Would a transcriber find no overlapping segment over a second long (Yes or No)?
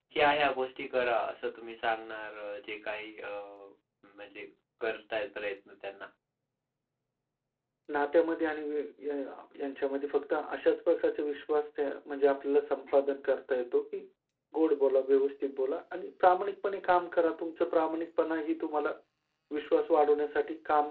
Yes